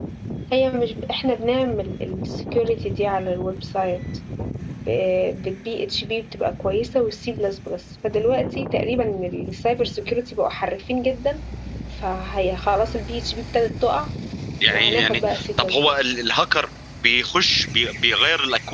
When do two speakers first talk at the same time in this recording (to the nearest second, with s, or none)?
15 s